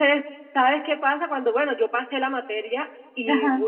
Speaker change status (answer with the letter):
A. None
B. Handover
A